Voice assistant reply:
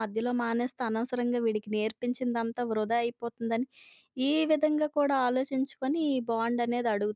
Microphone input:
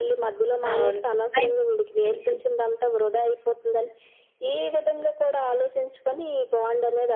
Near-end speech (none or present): present